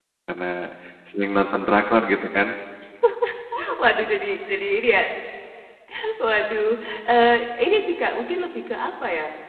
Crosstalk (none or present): none